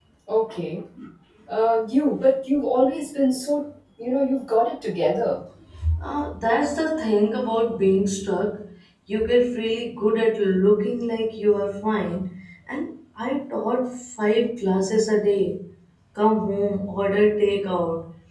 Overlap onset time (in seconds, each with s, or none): none